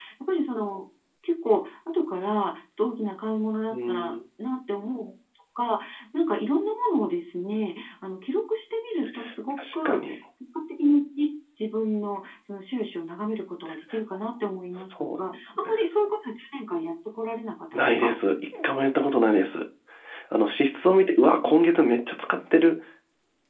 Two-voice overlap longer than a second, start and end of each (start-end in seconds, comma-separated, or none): none